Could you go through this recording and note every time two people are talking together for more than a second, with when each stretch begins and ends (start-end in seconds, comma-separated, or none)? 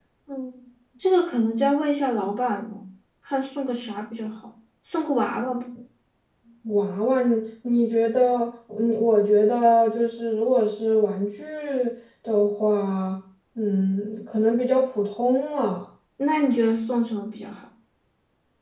none